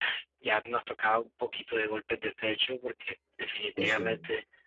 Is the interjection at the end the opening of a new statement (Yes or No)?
No